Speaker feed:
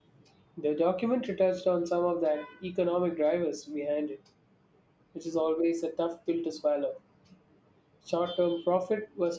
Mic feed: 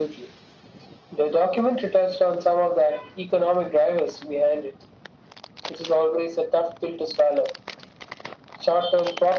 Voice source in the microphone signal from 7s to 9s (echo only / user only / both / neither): echo only